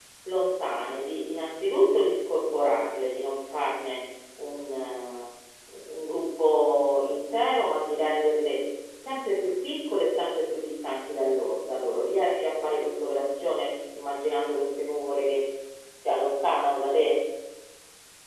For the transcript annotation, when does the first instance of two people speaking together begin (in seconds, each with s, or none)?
none